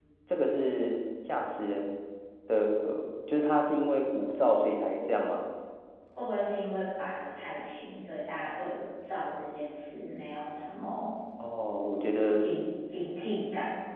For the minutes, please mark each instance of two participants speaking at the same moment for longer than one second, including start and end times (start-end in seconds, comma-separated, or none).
none